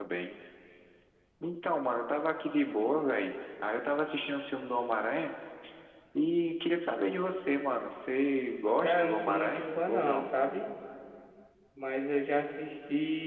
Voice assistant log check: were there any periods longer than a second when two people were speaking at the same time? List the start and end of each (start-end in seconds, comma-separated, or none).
8.8-10.3